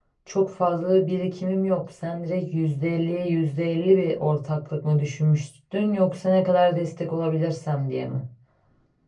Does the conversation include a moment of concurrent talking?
No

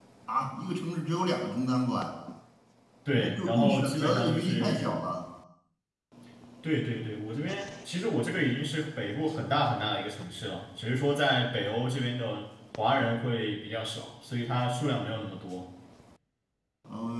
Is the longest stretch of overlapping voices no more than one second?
No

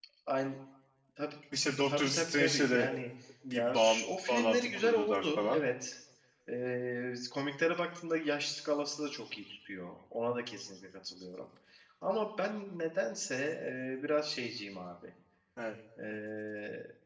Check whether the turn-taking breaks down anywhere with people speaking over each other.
Yes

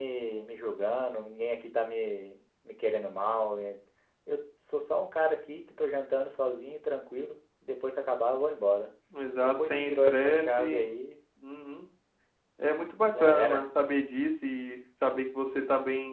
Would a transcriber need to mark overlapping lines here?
Yes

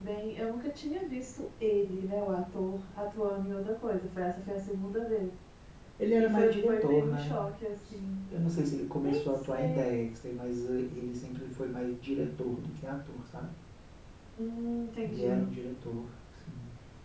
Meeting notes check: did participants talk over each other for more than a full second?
Yes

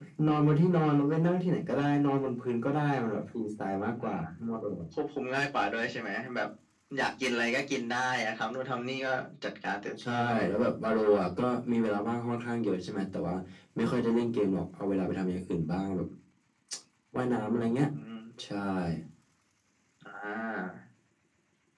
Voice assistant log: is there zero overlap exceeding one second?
Yes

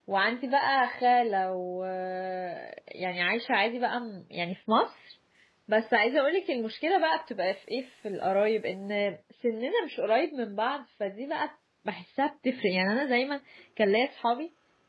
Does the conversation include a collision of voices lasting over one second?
No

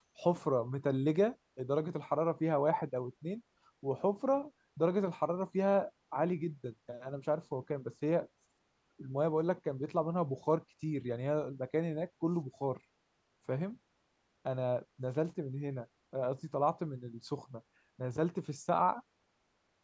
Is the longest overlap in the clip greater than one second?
No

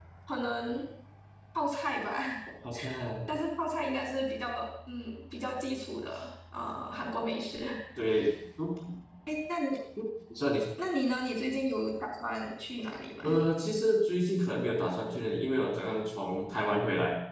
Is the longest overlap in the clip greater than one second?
No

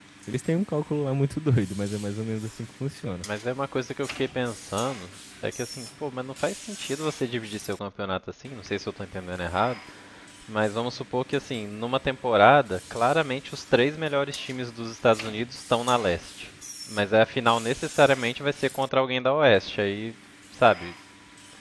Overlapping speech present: No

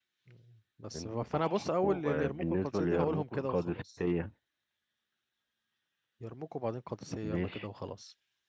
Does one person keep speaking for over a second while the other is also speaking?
Yes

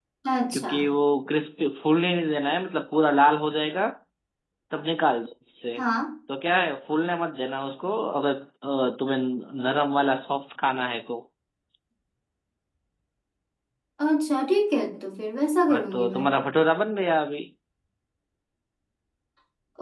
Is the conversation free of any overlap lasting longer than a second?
Yes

